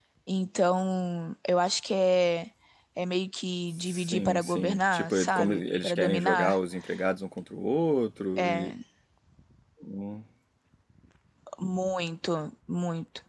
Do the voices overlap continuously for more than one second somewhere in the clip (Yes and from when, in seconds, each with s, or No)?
Yes, from 3.9 s